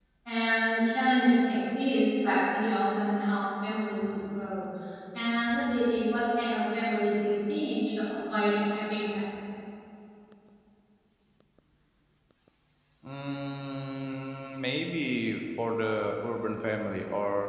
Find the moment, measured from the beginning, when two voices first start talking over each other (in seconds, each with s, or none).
none